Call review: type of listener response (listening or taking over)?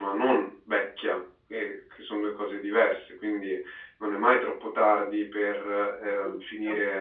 listening